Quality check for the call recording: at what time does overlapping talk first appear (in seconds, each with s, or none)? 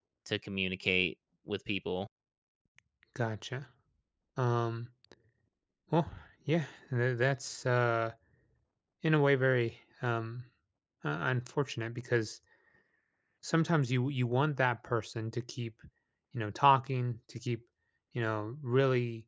none